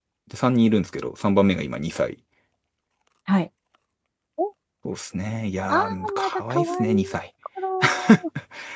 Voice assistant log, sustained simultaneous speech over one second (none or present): present